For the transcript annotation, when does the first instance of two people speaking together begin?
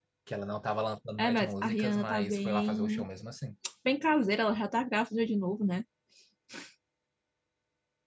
1 s

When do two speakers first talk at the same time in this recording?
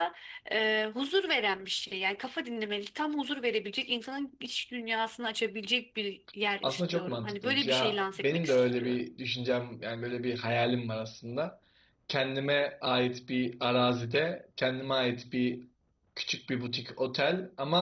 7 s

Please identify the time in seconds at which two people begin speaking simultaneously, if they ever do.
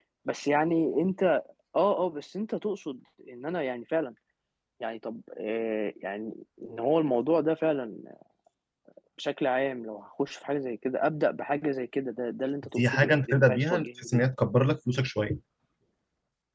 13 s

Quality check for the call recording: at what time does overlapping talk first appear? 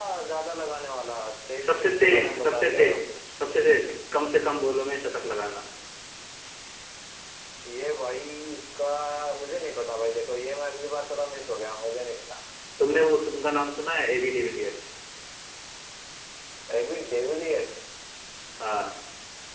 2 s

